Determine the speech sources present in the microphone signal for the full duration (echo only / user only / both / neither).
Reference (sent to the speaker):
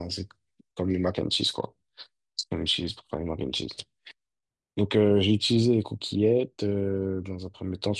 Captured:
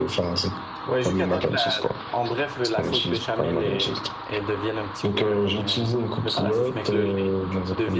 both